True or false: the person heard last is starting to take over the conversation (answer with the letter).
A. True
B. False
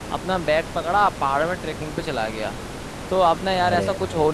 B